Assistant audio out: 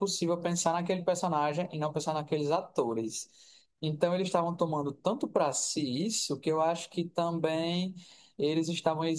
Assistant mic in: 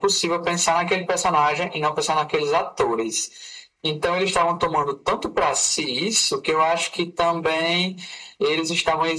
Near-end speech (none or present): none